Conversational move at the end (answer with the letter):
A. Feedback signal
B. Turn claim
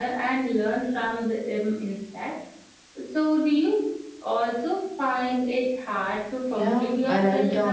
B